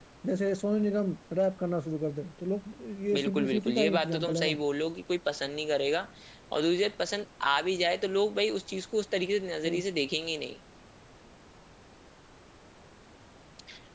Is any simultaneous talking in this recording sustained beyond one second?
Yes, from 3.1 s

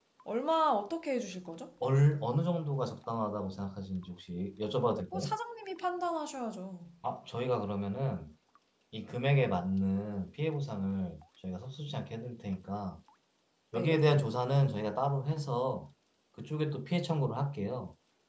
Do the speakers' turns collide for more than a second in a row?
No

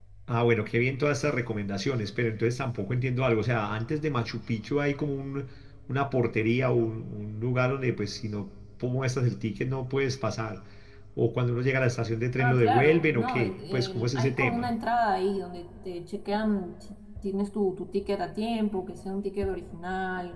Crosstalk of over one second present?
Yes, from 12.4 s

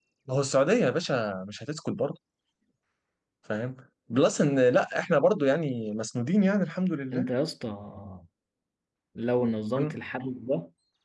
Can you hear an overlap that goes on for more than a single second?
No

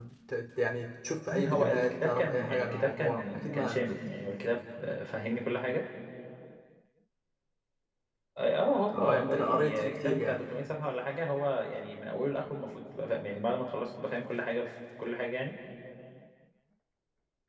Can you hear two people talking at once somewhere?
Yes, from 1.3 s

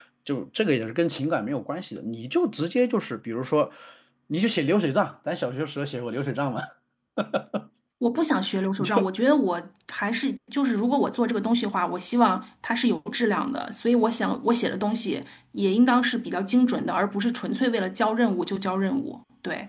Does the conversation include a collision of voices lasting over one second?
No

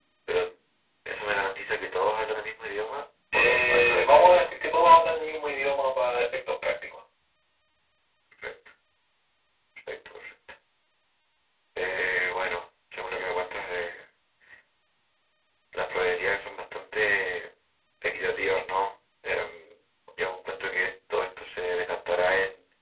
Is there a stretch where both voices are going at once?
Yes, from 3.3 s

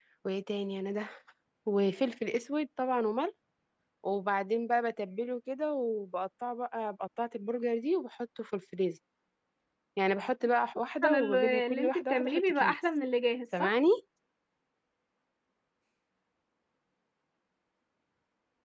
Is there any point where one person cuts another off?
Yes, from 11.0 s

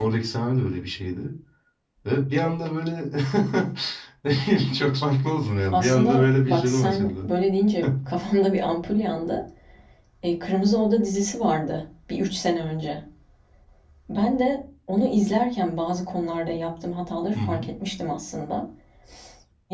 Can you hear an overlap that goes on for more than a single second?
Yes, from 5.7 s

